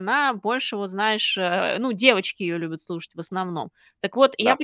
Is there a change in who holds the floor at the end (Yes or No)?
No